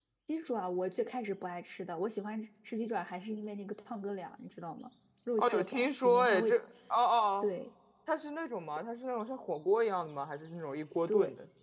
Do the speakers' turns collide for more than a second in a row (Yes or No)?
Yes